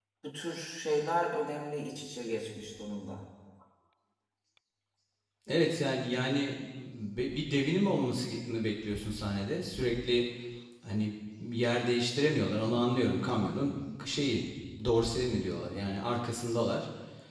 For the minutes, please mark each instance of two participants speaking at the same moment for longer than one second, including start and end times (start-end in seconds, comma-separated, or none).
none